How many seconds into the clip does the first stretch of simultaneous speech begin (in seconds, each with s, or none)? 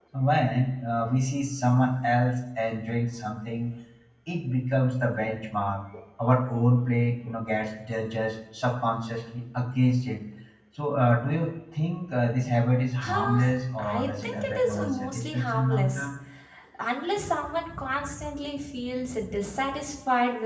13.0 s